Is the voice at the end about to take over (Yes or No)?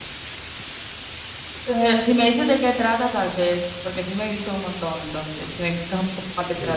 Yes